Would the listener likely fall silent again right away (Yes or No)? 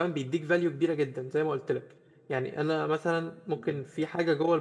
Yes